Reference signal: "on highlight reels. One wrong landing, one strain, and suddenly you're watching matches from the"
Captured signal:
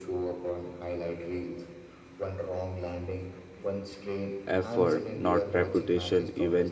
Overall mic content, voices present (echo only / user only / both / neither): both